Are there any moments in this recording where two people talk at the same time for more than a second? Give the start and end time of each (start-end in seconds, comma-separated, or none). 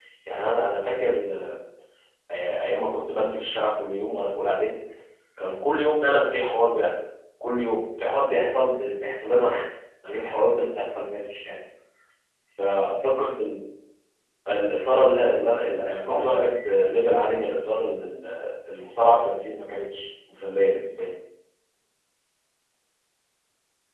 15.2-16.5